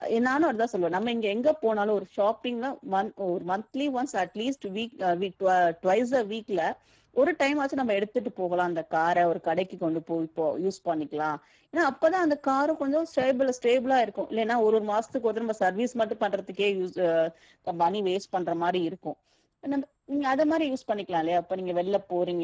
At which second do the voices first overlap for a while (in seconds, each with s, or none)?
none